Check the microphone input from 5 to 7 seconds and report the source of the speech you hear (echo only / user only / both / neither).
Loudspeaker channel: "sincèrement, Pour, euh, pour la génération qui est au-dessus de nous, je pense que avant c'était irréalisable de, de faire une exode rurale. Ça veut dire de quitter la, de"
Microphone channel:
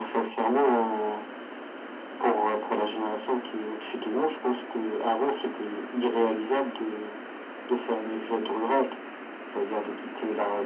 echo only